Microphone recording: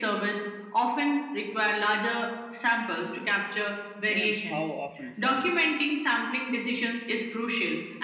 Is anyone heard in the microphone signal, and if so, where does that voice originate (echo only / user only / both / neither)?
both